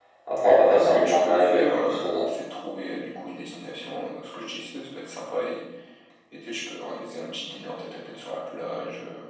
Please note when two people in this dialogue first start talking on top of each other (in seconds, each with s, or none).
0.6 s